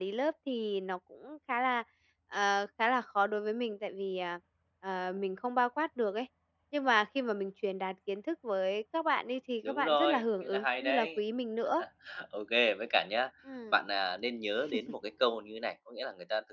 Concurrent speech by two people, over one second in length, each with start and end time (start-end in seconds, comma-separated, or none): 9.6-11.1